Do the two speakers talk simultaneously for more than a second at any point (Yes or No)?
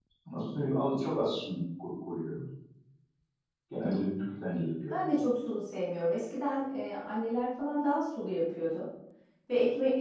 No